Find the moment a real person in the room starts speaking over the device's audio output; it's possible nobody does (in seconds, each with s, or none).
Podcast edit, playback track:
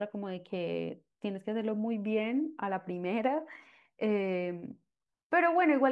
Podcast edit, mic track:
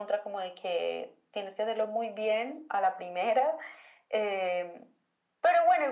none